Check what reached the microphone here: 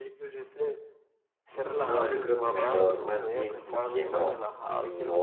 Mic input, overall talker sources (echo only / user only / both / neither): both